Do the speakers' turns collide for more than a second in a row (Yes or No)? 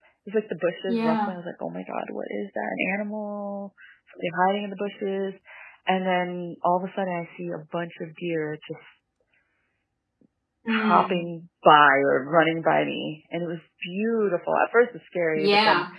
No